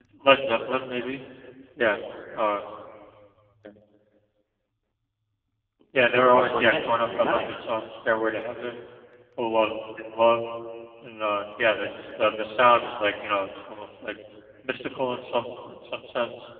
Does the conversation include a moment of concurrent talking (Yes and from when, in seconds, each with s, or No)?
Yes, from 6.1 s